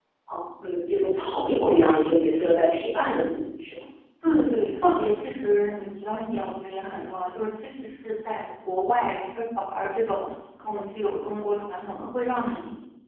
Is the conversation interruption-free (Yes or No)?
Yes